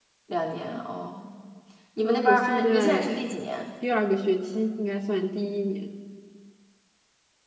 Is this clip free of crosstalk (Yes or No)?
No